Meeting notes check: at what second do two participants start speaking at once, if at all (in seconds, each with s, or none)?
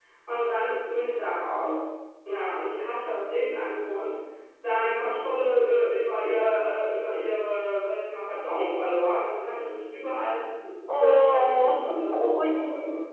10.9 s